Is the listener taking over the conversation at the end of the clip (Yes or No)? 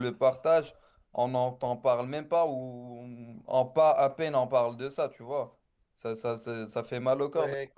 No